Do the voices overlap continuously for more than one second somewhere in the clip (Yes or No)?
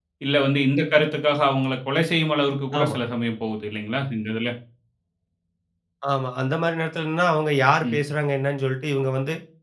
No